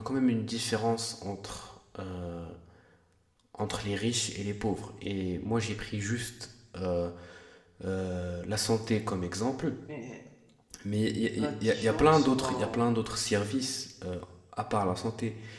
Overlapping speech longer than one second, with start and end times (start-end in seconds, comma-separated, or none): 11.4-12.8